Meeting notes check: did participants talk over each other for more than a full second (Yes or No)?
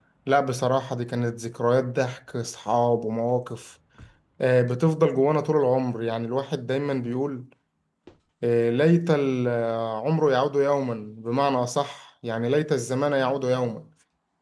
No